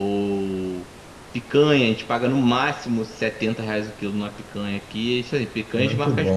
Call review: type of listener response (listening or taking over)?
listening